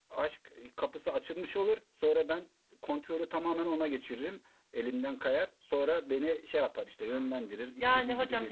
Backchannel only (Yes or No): No